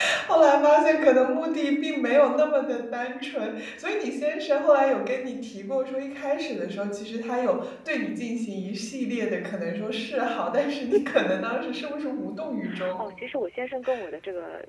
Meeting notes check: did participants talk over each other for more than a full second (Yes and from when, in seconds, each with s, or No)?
No